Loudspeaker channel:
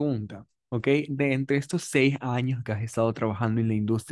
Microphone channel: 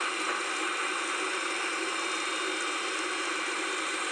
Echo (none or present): none